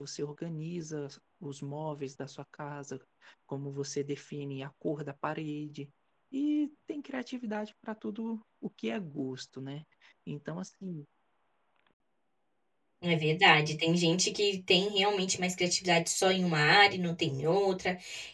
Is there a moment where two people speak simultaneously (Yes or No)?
No